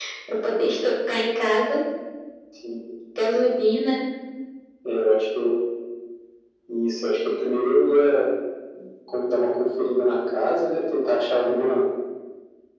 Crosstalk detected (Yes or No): No